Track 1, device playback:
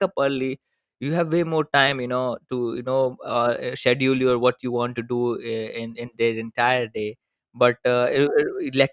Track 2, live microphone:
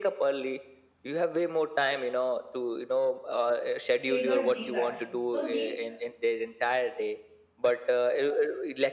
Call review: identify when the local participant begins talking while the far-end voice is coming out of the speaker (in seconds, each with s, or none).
4.0 s